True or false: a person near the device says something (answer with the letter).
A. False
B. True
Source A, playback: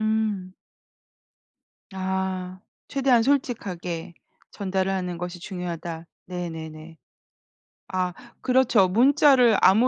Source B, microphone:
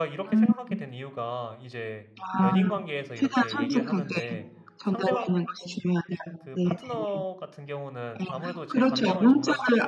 B